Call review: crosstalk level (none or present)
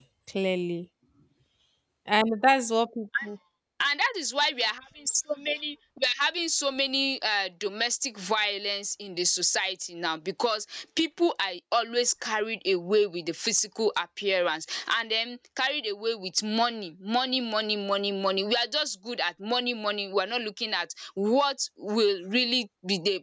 none